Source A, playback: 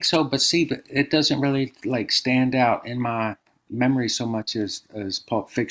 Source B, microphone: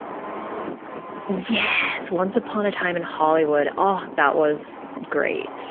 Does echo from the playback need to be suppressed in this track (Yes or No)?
No